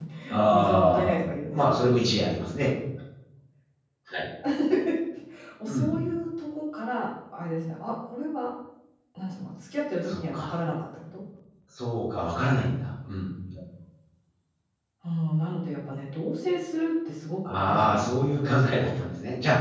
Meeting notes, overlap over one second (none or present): present